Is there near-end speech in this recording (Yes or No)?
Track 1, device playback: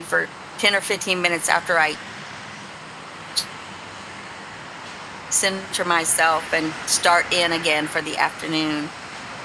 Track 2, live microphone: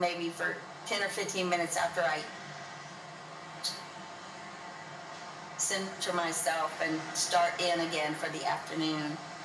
No